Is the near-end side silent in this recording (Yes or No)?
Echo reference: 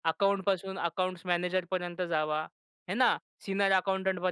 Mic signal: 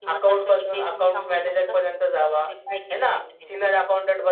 No